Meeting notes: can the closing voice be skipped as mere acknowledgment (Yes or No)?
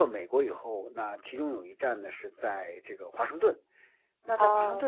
Yes